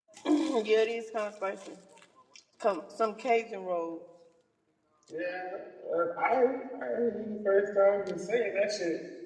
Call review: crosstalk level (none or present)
none